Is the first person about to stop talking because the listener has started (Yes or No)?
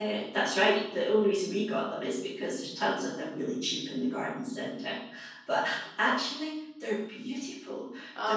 No